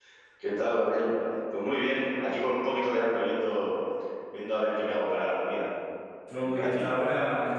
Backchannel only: No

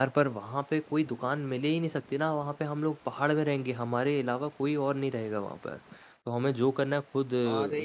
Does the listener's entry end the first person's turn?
No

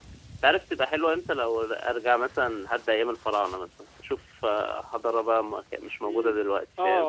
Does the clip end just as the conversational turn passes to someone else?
Yes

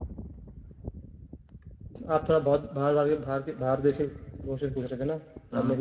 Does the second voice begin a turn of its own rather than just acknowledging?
No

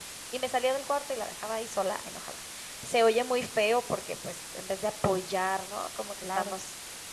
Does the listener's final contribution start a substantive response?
No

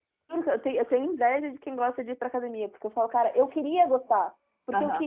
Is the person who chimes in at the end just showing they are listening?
Yes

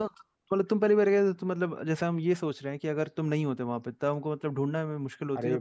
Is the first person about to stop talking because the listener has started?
Yes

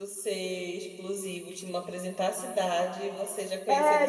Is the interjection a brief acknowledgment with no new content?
No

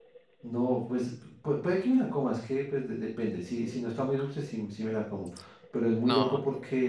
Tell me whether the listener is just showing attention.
Yes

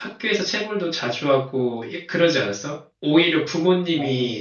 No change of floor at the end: Yes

